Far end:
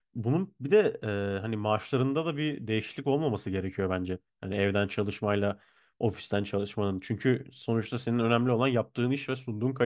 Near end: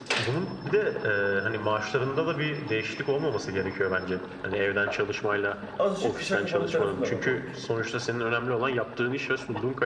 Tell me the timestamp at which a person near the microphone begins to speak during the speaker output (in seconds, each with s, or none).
5.8 s